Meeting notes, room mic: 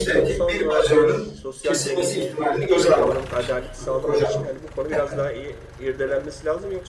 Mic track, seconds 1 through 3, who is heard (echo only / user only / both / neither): both